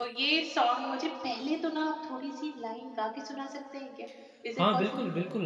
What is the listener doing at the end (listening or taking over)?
taking over